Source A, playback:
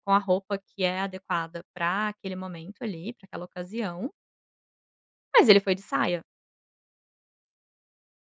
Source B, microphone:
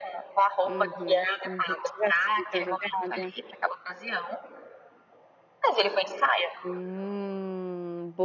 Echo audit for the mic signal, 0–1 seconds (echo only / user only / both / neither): both